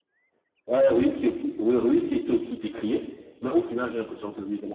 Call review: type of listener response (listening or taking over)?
listening